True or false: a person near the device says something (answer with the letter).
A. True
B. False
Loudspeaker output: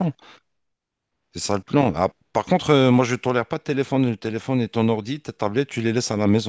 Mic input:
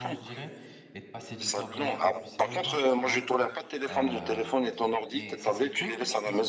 A